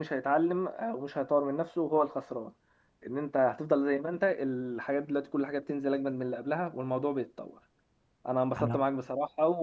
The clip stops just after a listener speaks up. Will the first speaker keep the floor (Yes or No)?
Yes